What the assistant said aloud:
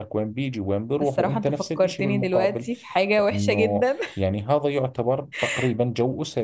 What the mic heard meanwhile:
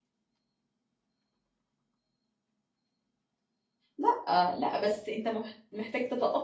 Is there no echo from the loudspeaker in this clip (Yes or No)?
Yes